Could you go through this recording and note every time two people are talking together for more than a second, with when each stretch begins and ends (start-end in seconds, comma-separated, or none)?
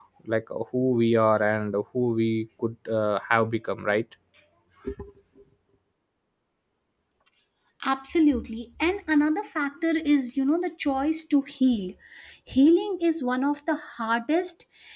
none